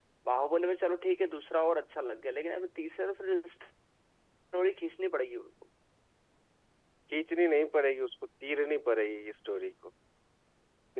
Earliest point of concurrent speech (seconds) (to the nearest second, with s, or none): none